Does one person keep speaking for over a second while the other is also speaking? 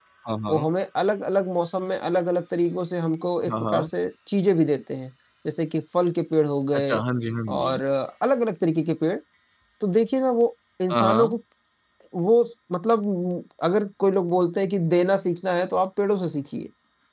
No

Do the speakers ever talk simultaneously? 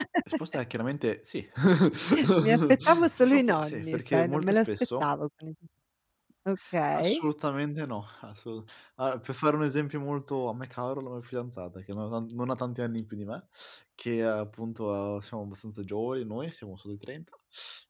Yes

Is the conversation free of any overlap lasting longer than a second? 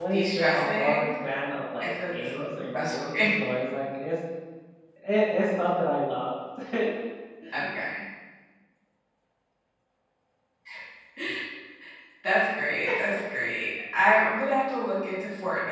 No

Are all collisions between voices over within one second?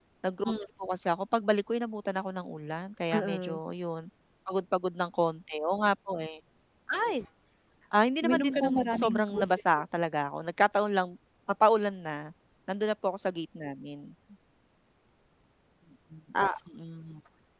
No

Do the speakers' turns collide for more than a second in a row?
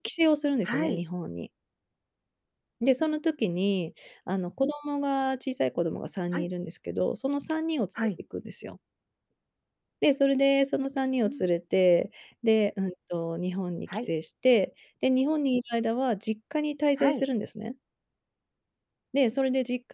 No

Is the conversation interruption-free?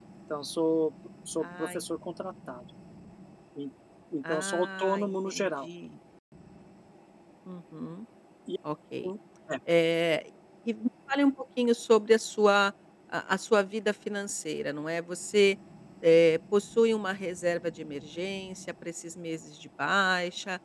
No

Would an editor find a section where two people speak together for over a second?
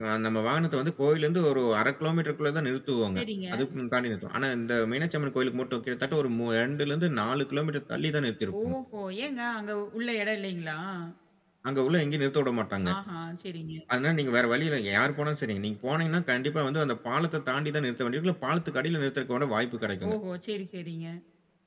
No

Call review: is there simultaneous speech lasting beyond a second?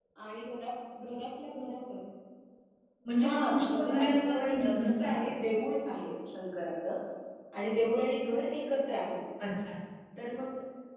Yes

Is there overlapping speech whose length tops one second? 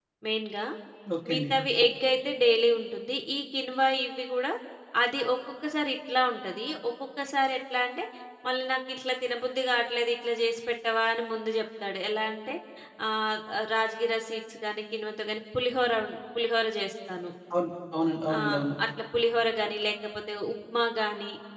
No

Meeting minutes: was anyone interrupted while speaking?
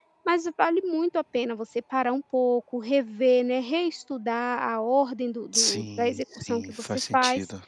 Yes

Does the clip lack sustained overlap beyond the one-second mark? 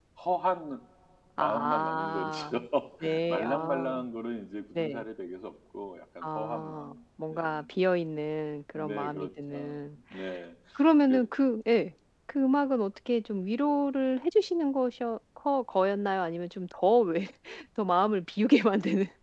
No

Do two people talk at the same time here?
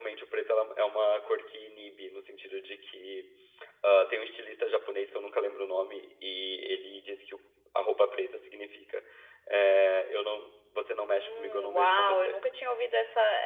Yes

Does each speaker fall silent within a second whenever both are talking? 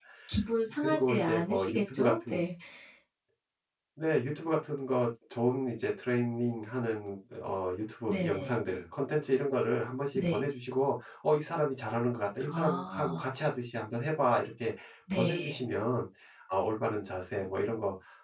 No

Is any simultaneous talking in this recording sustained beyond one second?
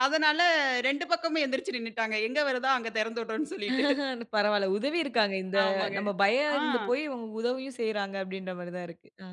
No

